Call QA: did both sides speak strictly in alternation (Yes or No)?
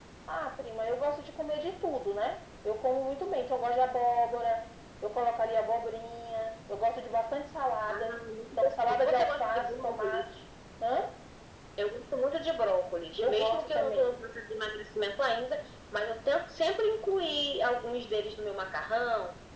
No